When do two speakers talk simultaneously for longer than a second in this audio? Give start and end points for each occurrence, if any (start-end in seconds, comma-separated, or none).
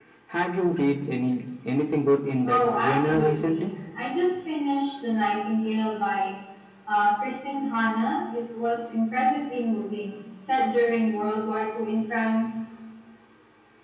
2.4-3.7